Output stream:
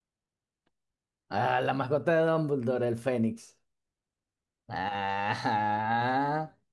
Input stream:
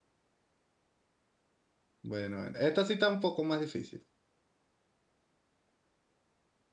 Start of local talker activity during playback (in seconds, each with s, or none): 2.0 s